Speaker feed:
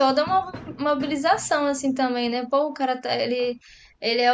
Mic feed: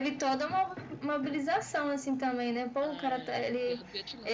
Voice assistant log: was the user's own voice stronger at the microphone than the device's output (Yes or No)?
No